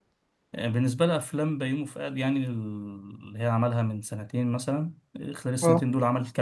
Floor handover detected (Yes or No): No